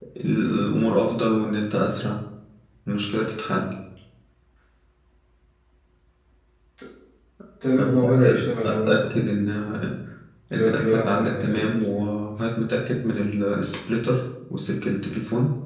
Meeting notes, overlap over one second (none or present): present